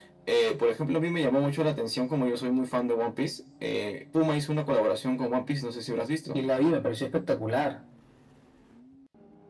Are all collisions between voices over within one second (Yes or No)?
Yes